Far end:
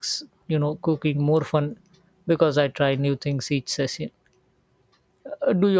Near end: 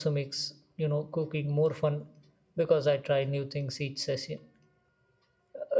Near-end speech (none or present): none